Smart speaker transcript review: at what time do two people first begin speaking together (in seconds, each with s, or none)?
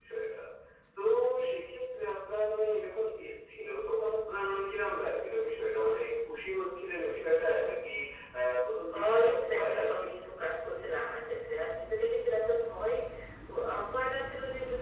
8.9 s